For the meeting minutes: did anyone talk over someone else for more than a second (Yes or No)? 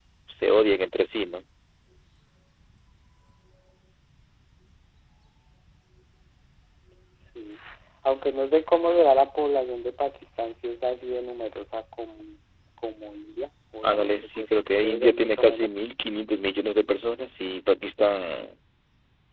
Yes